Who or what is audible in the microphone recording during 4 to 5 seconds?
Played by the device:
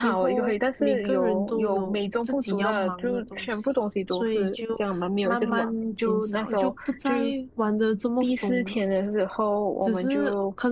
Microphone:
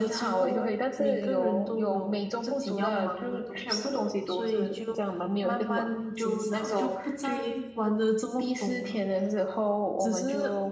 echo only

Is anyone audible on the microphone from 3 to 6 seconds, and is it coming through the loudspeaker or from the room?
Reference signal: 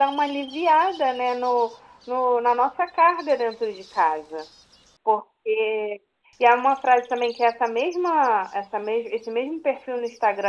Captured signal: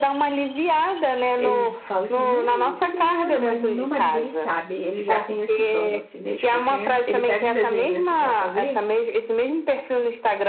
both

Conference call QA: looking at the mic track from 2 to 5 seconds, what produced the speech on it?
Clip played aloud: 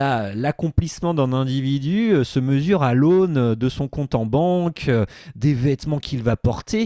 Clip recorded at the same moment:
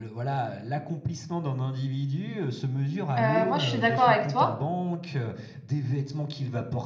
both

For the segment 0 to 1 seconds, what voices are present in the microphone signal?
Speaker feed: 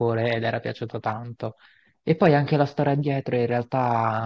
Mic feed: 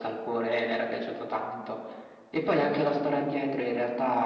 echo only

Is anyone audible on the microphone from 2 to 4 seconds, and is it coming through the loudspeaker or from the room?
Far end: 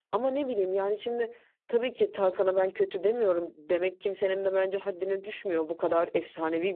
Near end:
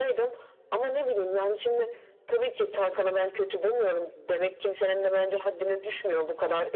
echo only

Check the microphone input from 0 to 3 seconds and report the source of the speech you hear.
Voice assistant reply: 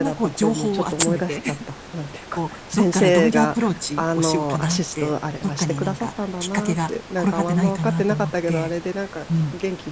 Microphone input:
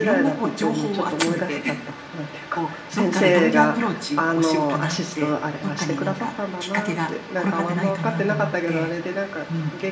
echo only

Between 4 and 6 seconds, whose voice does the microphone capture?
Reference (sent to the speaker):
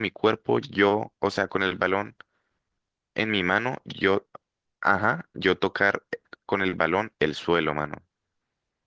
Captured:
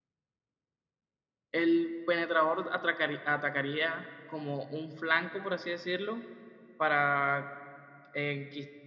user only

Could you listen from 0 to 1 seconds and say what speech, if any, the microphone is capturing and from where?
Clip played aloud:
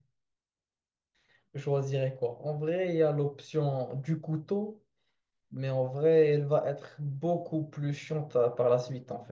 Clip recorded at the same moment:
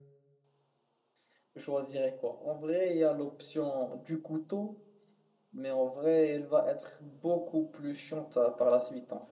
neither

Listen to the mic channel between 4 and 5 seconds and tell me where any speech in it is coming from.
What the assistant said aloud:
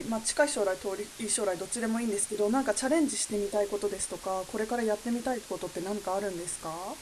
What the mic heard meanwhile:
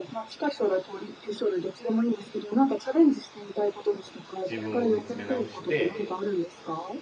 both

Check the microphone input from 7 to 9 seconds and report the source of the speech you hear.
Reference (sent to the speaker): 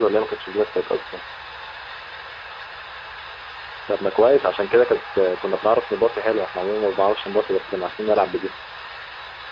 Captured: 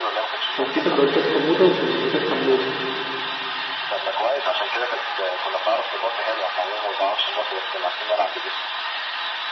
echo only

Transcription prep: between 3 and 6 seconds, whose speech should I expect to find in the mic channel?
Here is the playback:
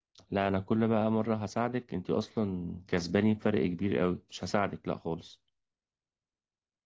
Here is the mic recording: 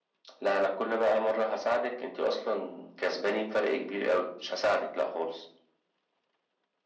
echo only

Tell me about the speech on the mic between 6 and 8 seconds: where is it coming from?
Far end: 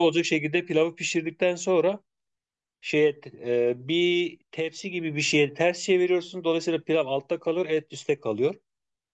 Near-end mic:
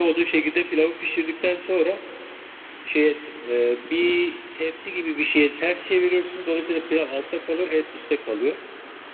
echo only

